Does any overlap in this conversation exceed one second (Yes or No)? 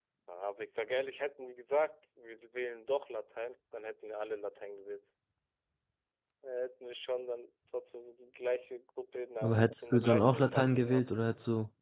Yes